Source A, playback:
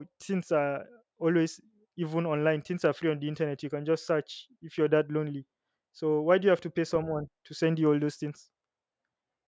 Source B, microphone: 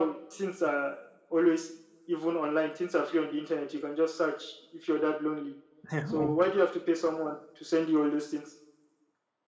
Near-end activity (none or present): present